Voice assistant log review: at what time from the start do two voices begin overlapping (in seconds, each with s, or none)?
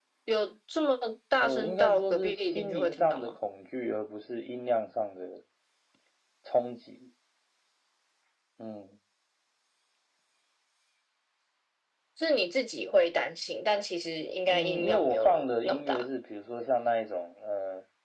1.4 s